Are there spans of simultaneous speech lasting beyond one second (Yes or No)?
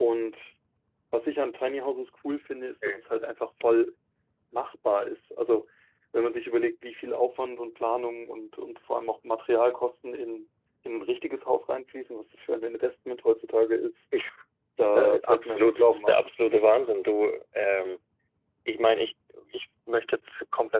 Yes